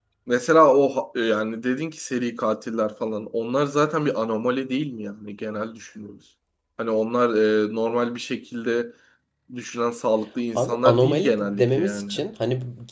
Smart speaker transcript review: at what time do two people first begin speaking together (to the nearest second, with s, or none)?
11 s